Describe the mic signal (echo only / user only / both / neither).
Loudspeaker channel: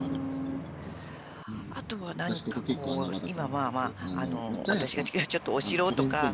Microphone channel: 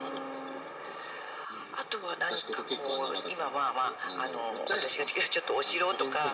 echo only